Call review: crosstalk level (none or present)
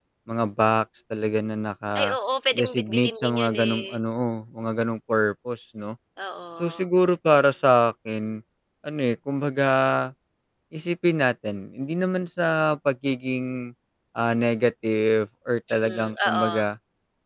present